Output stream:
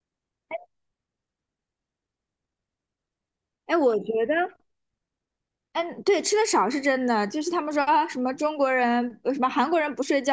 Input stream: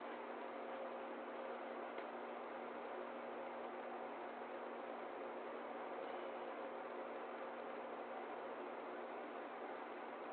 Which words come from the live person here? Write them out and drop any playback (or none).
none